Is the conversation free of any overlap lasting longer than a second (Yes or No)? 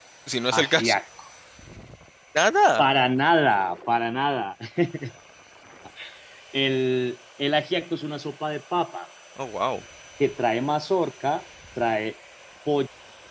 Yes